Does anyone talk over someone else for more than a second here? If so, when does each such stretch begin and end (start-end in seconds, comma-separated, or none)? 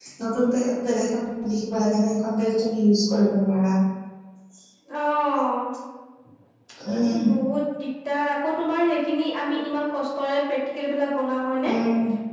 none